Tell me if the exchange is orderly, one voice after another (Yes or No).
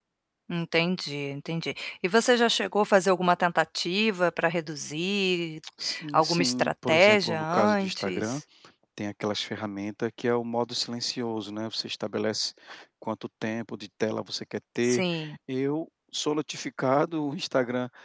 No